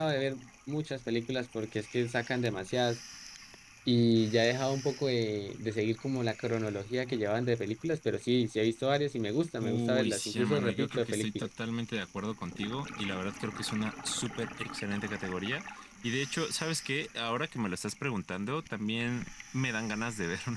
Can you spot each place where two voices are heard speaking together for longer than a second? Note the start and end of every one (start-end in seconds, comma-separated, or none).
9.6-11.5